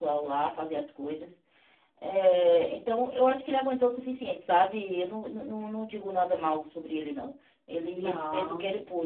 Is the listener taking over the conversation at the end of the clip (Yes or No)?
No